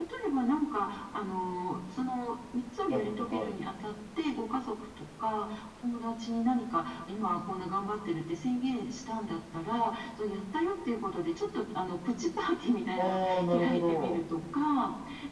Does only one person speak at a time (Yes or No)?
No